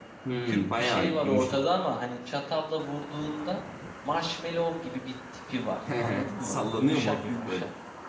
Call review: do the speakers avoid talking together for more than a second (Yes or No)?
No